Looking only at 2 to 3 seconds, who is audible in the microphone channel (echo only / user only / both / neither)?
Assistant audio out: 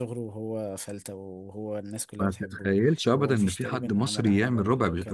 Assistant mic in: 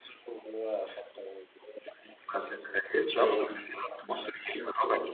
echo only